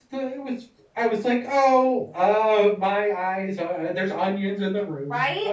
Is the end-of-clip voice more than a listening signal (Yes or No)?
Yes